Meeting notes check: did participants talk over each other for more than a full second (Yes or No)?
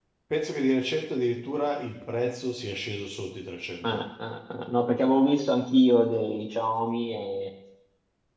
No